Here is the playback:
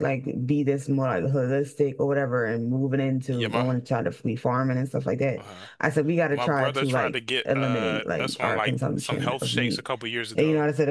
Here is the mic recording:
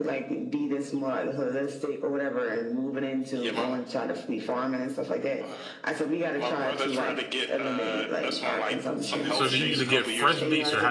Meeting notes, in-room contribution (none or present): present